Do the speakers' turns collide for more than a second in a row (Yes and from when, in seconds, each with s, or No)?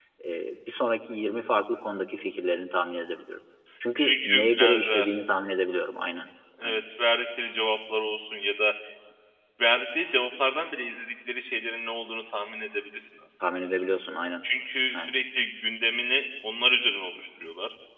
Yes, from 4.0 s